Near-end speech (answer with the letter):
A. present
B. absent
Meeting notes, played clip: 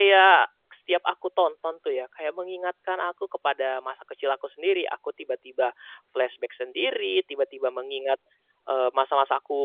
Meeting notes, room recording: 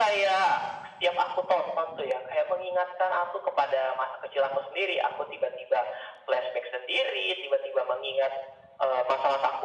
B